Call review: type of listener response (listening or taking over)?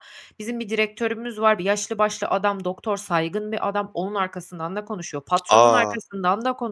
listening